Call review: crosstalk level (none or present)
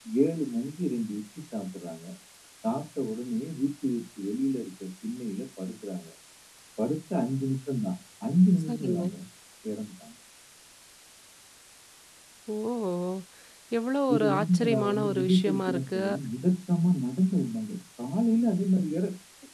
present